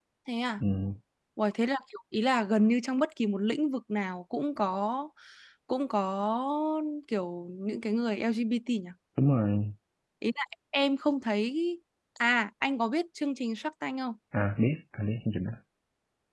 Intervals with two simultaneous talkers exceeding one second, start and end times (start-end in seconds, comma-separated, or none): none